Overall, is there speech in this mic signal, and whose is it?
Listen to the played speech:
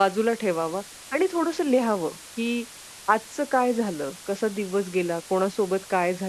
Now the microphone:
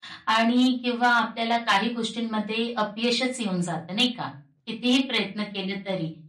user only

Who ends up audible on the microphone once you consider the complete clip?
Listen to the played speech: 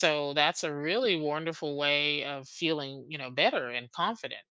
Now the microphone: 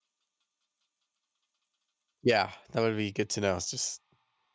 user only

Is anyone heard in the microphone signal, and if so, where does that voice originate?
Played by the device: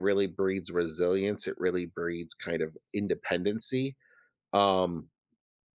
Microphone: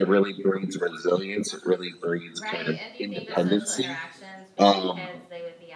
both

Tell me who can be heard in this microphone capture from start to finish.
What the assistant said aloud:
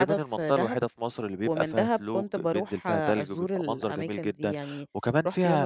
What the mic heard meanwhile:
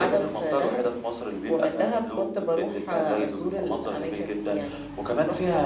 echo only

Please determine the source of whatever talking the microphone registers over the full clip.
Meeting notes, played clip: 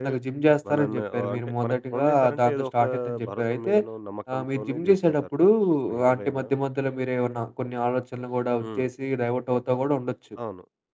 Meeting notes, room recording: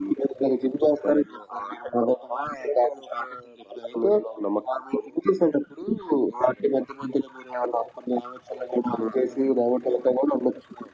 echo only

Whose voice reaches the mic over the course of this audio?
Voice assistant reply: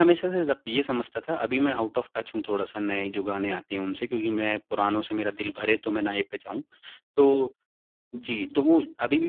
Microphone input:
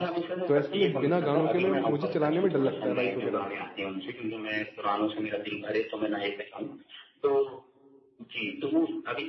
both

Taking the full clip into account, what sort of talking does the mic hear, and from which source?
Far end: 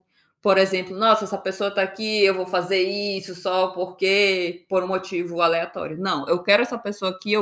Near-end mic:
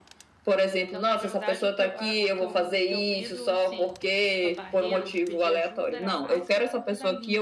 both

